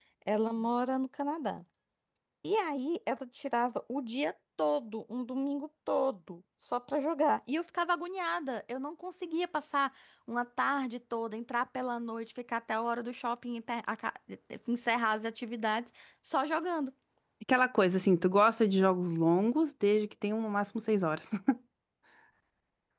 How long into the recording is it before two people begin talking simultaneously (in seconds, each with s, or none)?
none